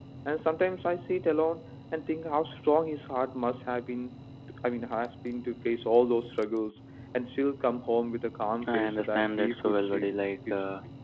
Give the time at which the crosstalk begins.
9 s

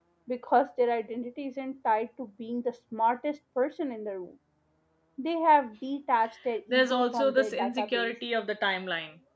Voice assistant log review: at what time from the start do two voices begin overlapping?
7 s

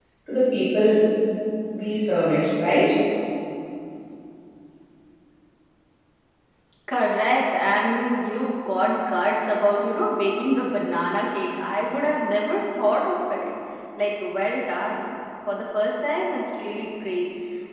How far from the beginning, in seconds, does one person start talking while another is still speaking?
none

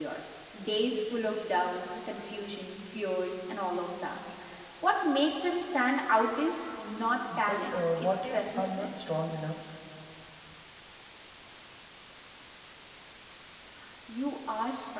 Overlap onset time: 7 s

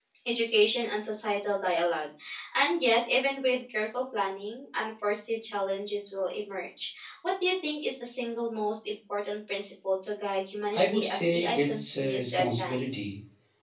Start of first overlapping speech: 11 s

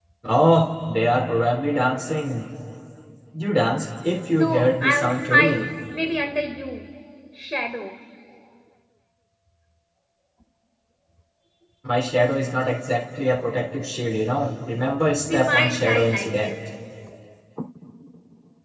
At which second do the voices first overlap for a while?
4 s

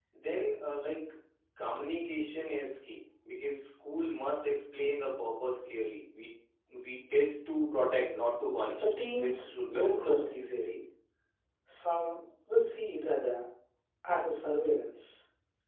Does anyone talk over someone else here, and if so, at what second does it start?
9 s

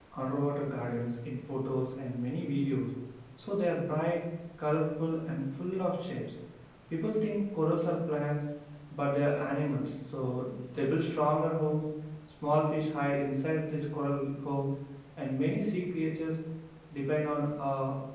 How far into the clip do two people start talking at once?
none

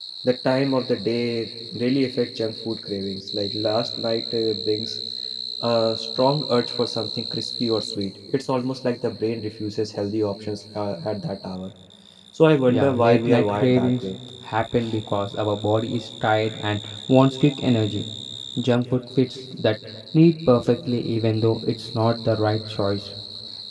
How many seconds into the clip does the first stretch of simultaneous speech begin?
13 s

